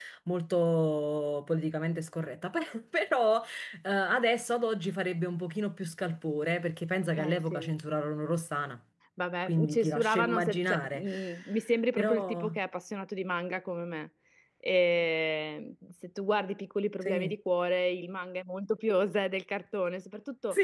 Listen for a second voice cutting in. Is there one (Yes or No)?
Yes